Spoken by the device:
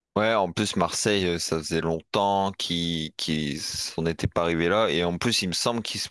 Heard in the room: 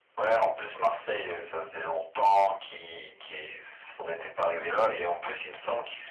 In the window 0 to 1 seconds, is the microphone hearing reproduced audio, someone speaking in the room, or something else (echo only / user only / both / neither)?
echo only